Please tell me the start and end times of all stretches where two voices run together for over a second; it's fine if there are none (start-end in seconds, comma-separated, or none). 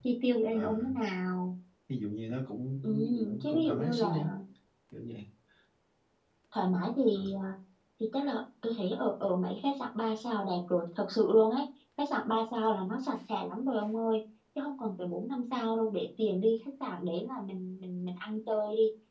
2.8-4.3